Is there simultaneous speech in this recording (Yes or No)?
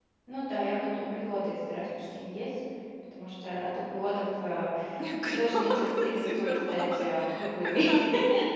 Yes